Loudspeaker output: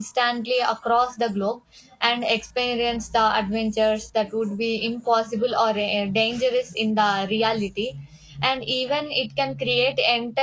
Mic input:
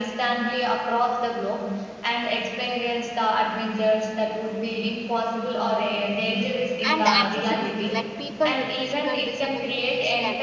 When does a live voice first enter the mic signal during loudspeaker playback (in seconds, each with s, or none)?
6.8 s